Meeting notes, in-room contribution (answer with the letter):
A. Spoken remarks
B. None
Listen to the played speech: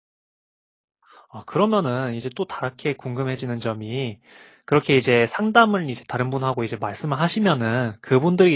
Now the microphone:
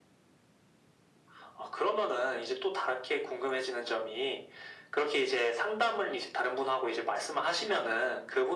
B